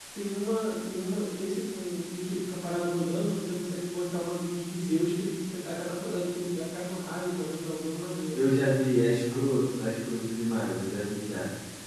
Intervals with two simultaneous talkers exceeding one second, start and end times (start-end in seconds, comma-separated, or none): none